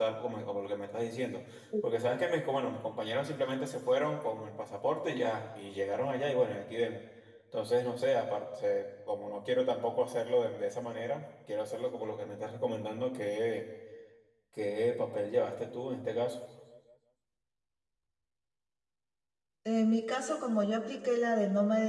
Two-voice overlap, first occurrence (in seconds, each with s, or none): none